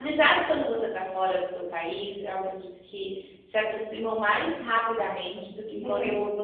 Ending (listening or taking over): listening